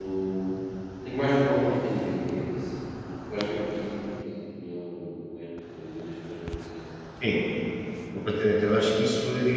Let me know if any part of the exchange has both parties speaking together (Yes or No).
No